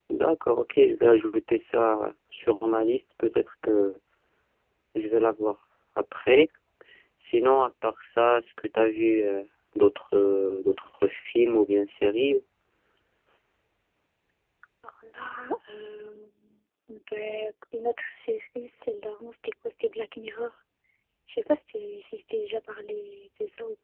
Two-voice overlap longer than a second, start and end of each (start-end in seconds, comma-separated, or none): none